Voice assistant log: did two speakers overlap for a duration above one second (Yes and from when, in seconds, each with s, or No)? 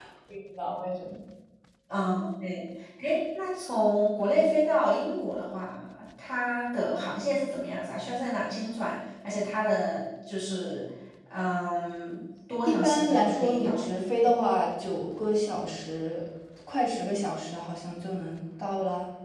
Yes, from 12.6 s